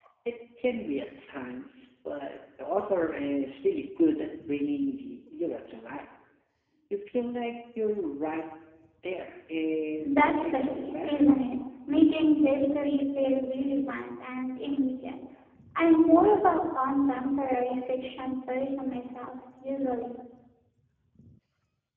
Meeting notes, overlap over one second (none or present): present